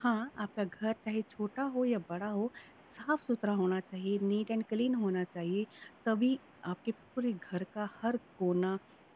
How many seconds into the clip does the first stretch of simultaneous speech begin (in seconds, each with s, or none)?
none